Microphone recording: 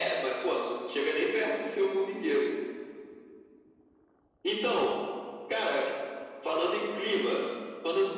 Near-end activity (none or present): none